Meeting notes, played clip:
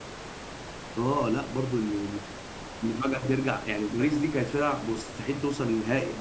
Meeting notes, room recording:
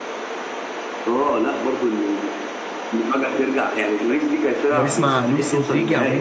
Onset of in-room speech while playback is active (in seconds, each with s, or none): 4.7 s